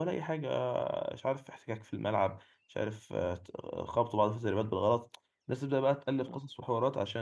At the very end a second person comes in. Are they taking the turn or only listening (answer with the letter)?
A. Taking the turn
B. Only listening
B